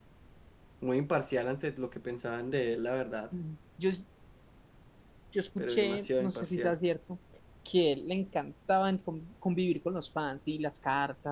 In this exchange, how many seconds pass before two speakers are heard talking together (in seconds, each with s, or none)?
5.6 s